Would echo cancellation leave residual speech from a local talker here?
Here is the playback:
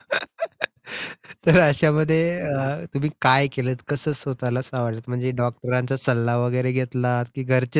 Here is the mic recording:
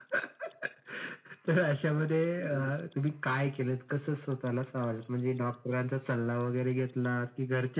No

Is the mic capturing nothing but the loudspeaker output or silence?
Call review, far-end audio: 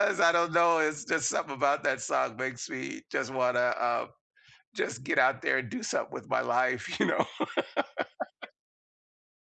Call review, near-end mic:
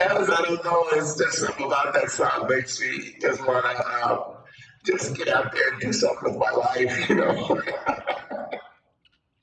Yes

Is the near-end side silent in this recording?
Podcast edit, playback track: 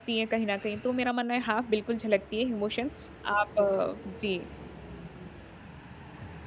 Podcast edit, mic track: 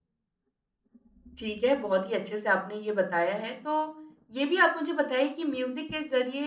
No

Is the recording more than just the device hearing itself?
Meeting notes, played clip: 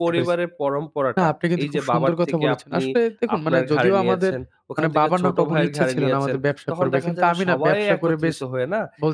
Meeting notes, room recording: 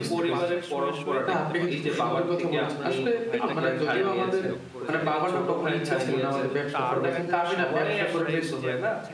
Yes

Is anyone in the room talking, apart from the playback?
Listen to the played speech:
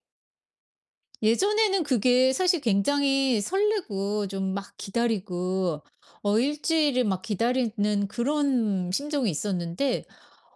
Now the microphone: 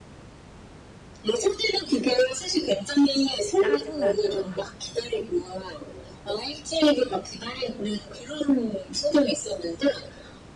Yes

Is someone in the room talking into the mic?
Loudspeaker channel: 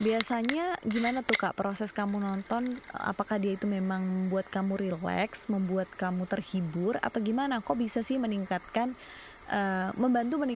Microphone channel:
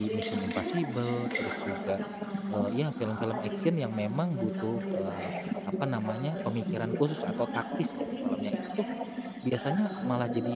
Yes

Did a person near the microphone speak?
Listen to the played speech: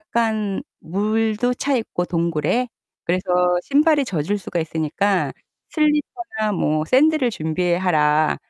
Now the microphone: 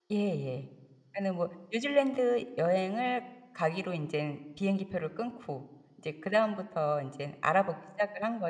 Yes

